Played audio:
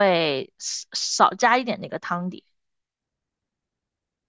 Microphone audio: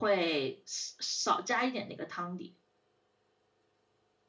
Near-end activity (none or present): none